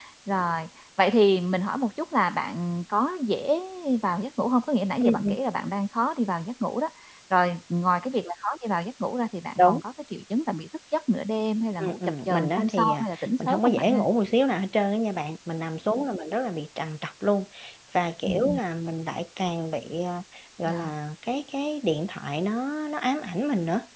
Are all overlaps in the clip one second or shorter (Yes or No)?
No